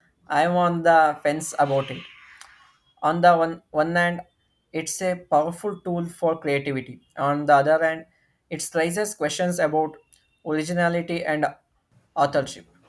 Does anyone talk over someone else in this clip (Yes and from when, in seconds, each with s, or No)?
No